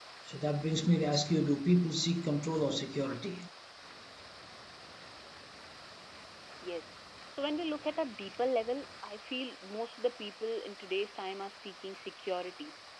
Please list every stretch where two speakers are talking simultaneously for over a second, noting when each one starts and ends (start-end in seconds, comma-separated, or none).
none